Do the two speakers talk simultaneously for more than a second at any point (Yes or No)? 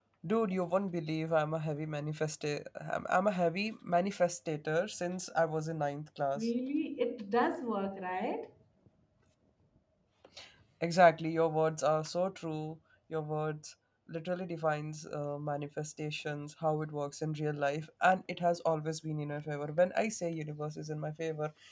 No